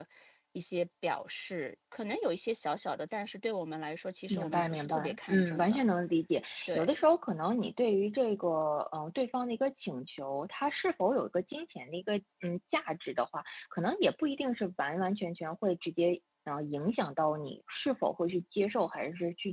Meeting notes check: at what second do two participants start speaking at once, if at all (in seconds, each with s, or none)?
4.3 s